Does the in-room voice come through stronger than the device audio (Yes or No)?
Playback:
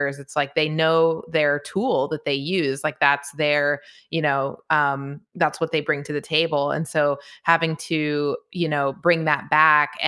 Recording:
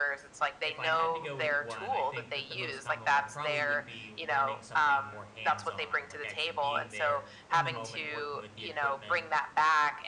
No